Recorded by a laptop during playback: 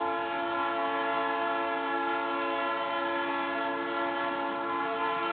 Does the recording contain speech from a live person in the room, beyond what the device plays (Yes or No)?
No